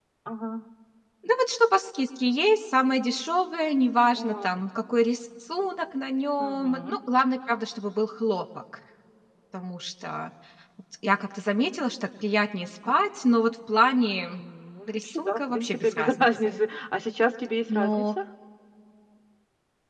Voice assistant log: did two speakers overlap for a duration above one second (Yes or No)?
Yes